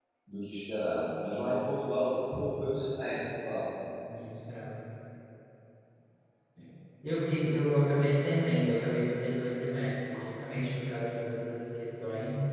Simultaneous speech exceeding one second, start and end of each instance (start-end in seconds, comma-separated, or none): none